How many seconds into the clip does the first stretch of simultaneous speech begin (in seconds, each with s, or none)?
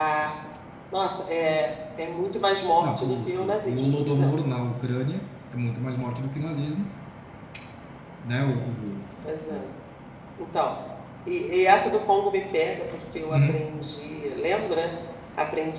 2.8 s